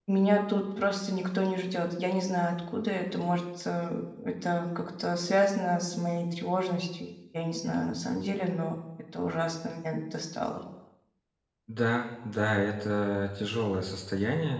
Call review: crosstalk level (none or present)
none